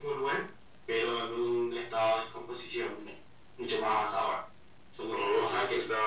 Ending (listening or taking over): taking over